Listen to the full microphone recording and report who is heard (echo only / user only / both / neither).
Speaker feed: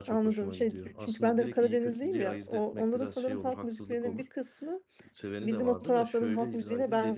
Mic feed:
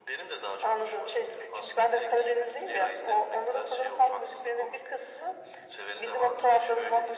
echo only